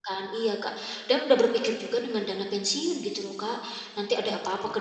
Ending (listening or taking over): listening